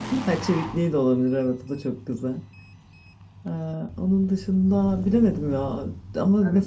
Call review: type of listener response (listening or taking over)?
listening